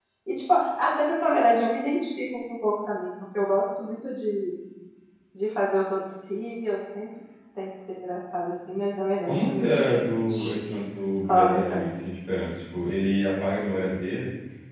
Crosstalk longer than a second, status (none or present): present